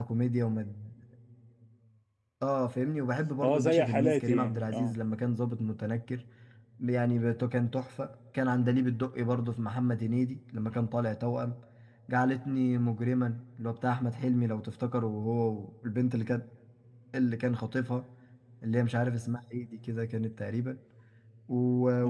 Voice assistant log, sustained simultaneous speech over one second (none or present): present